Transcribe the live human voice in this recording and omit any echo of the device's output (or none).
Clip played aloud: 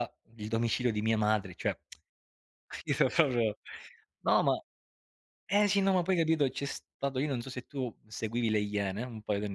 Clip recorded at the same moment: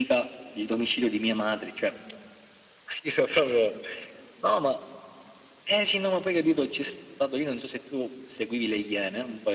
none